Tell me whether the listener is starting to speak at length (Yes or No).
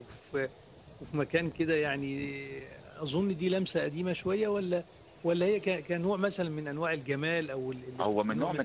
Yes